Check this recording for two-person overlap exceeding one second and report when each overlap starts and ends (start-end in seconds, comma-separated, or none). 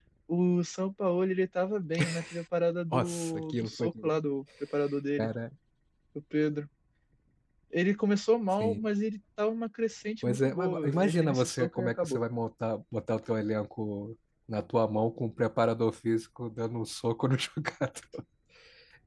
2.9-4.2, 10.2-12.2